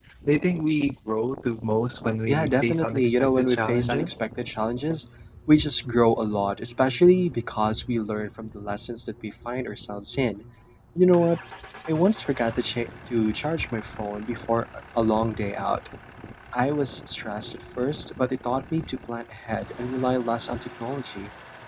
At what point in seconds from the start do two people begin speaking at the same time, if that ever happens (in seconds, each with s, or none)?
2.3 s